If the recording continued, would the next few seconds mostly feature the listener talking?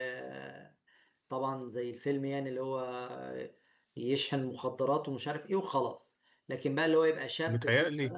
No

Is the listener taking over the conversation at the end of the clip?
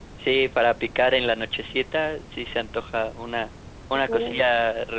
No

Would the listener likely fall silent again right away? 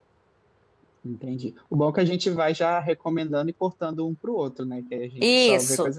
No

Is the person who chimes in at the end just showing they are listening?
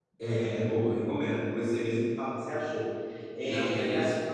Yes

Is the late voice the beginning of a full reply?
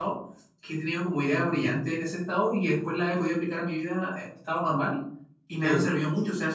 No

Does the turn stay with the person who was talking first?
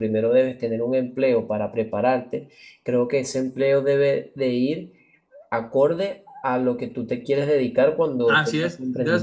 No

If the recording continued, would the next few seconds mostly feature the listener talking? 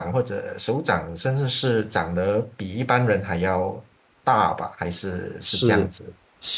Yes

